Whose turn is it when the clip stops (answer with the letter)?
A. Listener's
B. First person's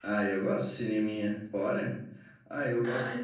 B